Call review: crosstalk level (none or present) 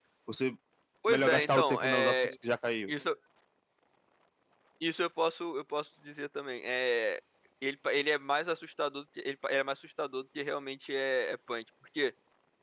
present